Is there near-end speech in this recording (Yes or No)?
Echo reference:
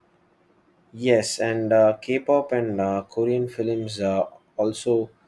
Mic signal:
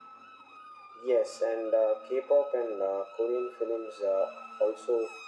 No